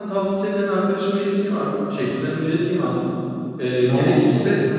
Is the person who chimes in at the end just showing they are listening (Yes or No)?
Yes